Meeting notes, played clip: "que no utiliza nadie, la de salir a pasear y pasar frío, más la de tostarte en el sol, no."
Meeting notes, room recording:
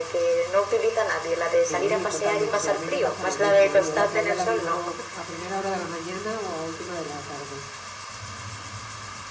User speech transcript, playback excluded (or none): Sí, totalmente. A mí me pasa lo mismo, ¿eh? Yo la playa la vivo a primera hora de la mañana o a última de la tarde.